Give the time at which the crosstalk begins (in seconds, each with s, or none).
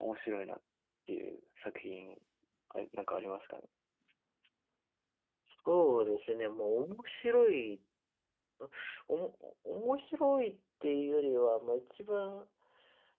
none